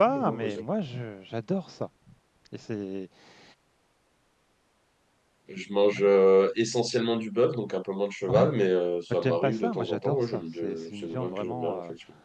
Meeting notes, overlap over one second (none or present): present